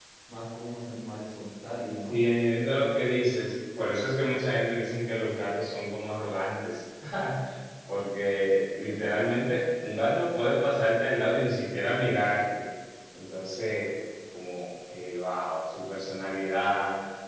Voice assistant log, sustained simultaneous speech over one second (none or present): none